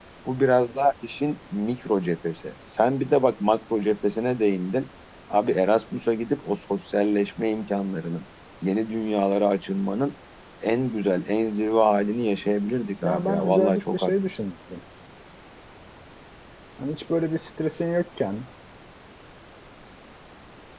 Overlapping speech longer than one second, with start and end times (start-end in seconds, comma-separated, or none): 13.0-14.4